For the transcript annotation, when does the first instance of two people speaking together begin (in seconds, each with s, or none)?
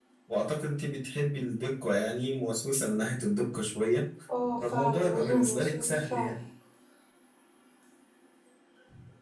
4.6 s